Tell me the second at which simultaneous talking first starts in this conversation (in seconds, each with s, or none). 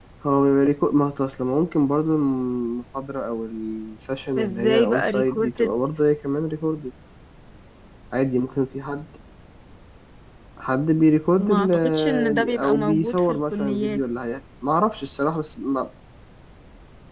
4.4 s